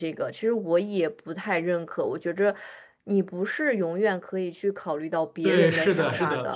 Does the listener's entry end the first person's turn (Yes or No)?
Yes